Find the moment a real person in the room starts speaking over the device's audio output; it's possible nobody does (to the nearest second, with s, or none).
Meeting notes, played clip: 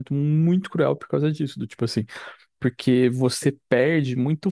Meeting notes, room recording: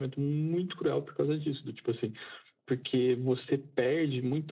none